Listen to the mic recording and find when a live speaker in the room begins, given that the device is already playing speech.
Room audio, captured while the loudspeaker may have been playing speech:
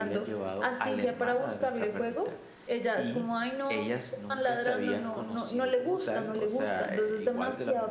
none

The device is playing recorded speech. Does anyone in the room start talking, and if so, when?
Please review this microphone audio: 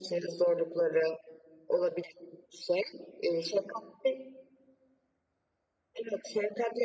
none

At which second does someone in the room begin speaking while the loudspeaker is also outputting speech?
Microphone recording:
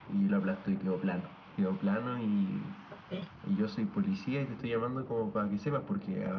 3 s

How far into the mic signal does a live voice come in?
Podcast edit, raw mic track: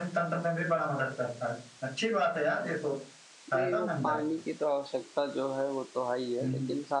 4 s

